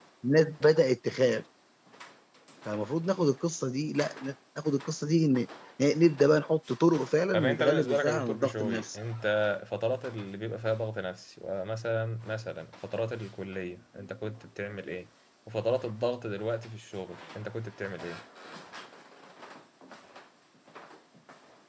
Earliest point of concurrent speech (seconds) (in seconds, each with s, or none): 7.3 s